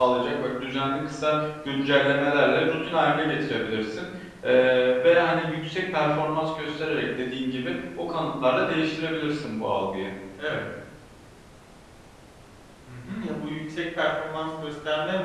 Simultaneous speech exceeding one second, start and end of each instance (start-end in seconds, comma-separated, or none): none